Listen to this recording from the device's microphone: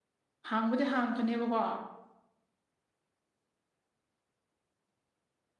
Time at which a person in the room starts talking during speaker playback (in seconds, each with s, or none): 0.5 s